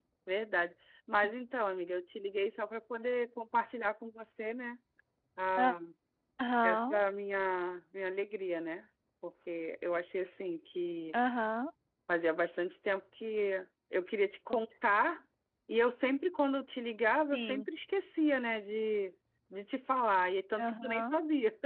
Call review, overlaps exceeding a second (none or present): none